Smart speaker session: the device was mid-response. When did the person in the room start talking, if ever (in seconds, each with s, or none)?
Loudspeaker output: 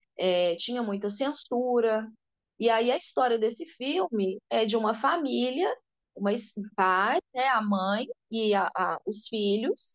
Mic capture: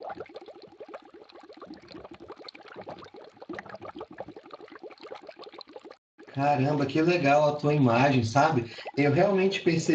6.3 s